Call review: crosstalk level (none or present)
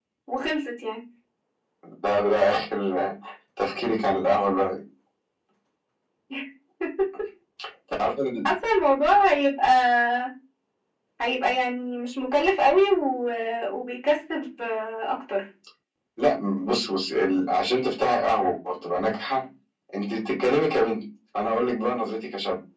none